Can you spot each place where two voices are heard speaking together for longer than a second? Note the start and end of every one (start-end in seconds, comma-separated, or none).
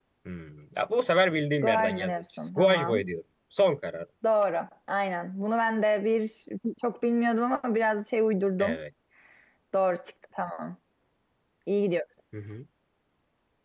1.6-3.0